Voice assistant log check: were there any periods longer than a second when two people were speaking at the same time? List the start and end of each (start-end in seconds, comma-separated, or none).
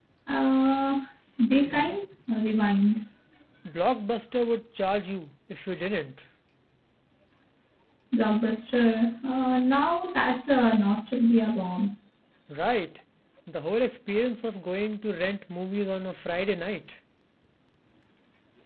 none